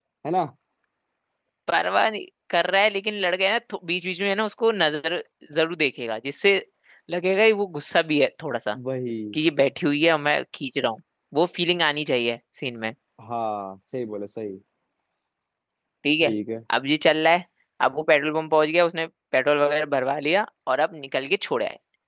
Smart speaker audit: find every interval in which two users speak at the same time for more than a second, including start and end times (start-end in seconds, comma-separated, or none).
none